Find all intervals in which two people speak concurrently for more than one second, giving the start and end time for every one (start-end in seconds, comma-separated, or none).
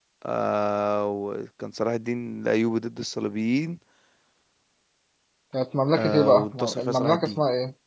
6.0-7.4